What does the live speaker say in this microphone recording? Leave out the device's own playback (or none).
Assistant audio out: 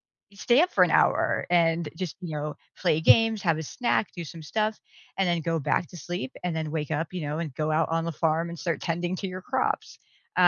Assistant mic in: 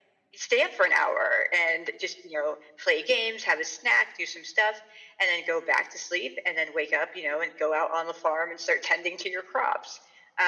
none